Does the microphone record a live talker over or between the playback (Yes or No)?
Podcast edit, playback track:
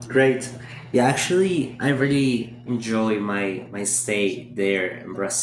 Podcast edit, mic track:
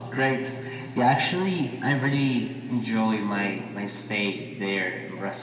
No